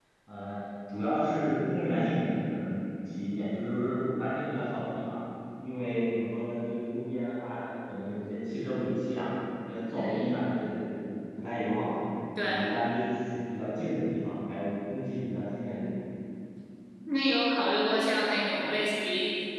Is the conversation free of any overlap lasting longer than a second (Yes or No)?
Yes